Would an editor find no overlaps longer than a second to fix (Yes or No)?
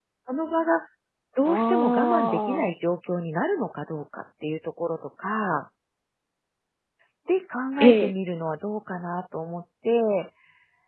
No